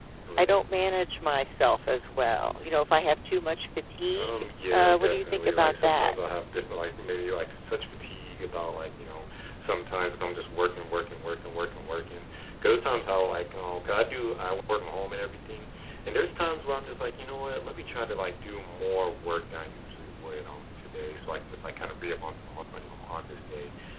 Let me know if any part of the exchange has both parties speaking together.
Yes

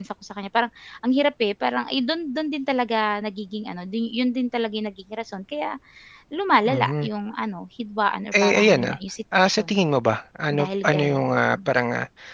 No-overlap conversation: No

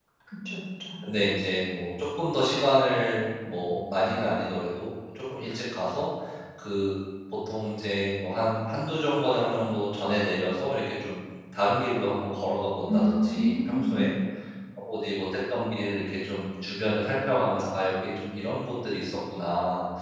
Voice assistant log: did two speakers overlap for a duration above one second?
Yes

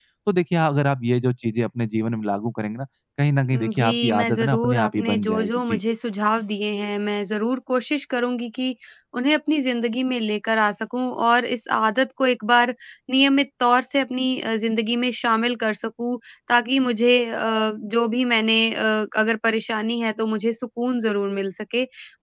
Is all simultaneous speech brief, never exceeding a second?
No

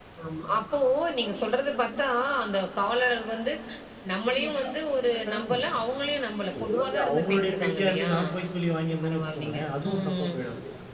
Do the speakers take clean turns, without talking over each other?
No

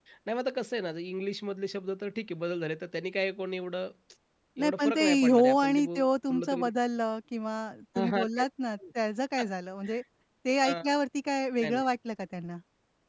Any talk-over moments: Yes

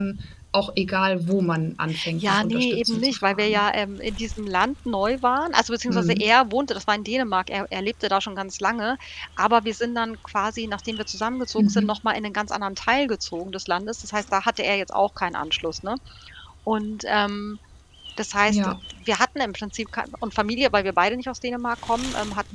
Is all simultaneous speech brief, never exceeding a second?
No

